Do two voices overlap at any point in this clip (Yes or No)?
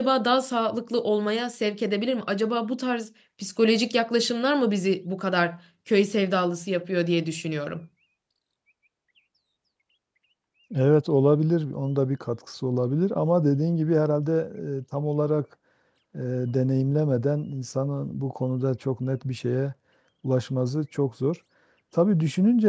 No